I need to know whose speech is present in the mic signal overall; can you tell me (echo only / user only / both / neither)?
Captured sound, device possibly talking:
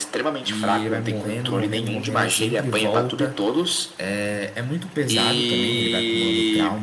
both